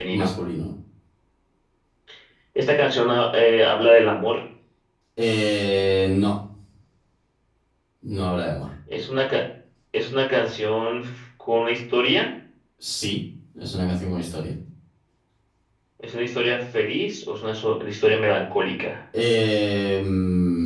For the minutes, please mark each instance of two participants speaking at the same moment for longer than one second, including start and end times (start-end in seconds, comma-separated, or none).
none